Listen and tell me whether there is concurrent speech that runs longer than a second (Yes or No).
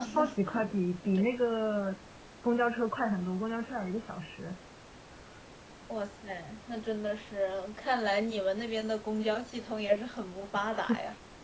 No